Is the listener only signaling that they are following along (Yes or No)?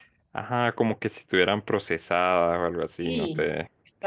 No